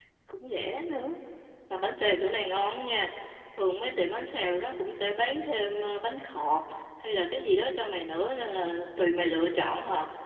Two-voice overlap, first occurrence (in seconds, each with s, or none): none